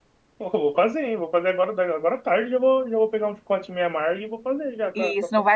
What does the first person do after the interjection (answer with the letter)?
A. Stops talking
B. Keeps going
A